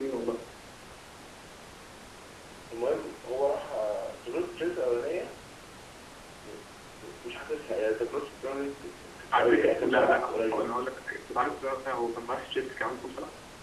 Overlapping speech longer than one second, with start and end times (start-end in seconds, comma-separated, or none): 9.3-10.7